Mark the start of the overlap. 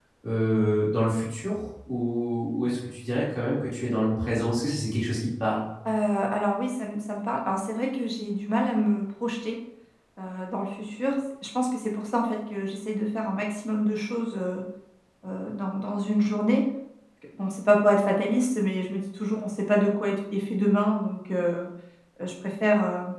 none

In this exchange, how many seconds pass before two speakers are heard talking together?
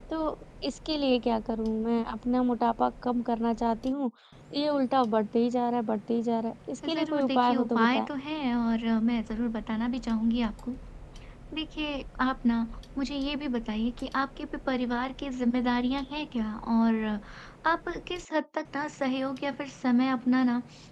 6.8 s

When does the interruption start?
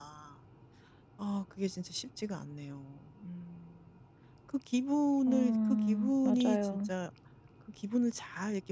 5.3 s

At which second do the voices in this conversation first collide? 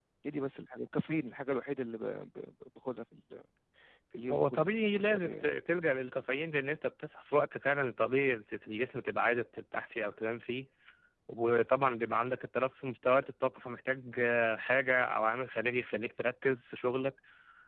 4.3 s

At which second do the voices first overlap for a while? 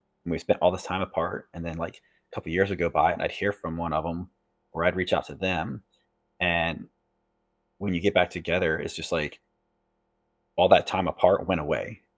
none

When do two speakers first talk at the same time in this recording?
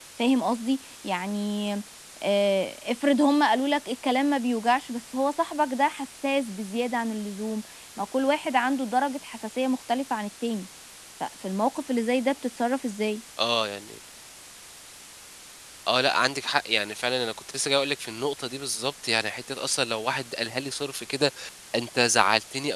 none

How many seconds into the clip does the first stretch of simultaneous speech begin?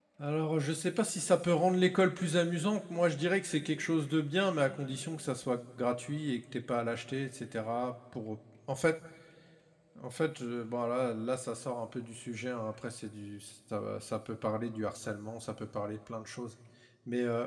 none

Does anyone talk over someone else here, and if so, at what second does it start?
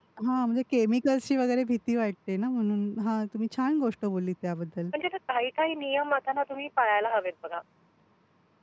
none

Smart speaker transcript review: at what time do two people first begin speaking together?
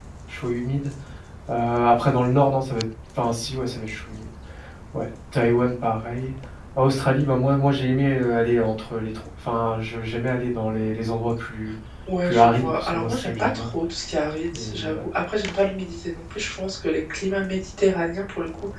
12.2 s

